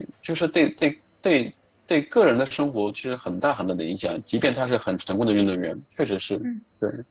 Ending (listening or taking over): taking over